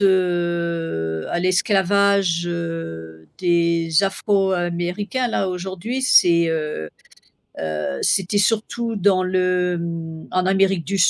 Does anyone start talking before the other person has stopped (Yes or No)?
No